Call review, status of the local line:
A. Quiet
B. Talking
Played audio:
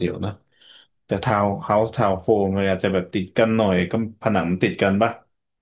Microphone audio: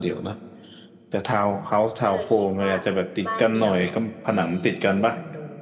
B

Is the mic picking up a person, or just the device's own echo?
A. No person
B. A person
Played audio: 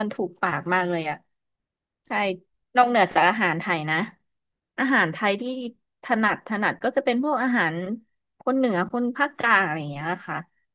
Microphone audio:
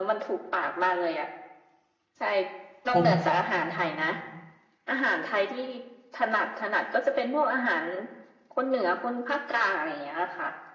B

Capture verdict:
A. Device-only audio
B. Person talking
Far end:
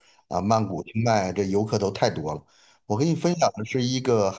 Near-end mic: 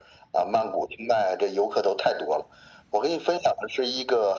A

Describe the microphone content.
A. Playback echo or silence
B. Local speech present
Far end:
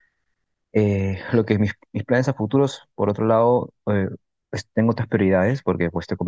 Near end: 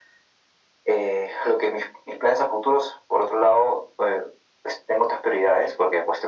A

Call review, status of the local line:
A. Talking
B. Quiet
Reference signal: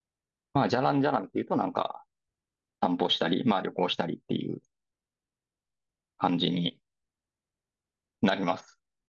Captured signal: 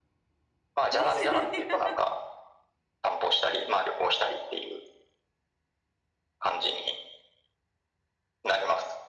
A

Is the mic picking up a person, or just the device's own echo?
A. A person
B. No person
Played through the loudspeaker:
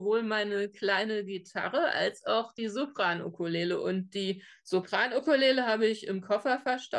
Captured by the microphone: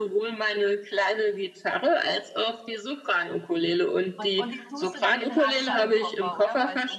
A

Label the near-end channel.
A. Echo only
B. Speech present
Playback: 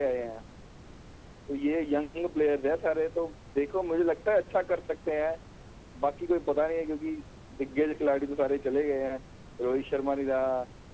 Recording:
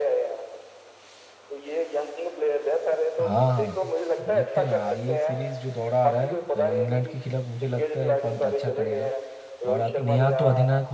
B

